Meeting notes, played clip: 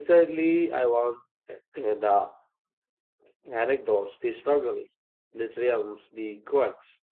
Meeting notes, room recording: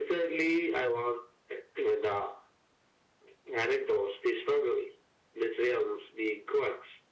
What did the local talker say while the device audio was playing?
none

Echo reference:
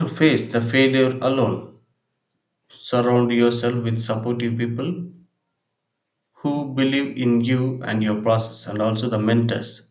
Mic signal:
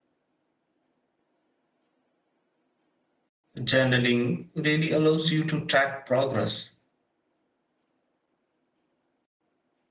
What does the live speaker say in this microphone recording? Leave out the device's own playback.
Journaling really allows you to track progress

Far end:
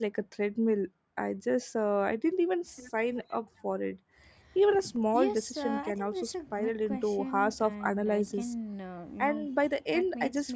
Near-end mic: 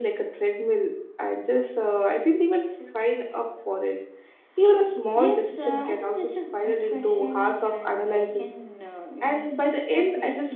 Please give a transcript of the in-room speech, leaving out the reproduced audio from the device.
none

